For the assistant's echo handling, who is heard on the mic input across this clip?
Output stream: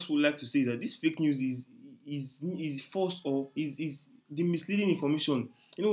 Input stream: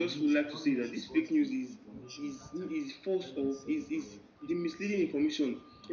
both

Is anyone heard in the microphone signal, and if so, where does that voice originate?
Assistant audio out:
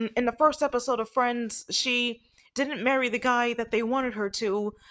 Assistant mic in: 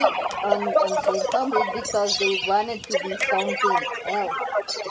both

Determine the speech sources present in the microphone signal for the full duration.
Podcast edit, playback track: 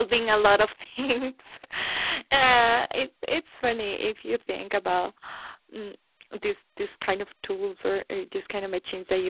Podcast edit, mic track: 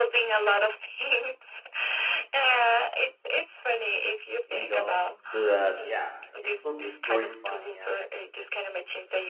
both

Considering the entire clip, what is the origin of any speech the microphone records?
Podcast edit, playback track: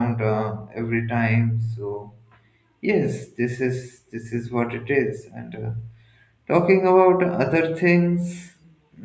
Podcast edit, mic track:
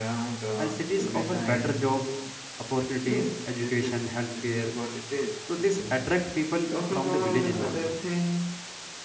both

